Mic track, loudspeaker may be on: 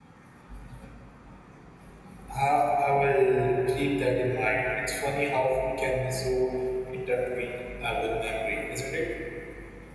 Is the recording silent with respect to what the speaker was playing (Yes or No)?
Yes